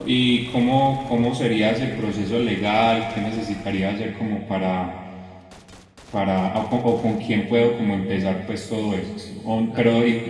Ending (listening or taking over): listening